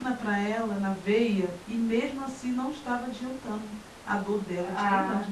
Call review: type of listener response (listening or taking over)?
taking over